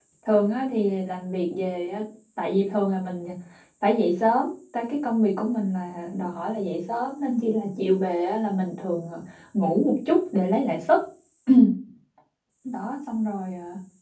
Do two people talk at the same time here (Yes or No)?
No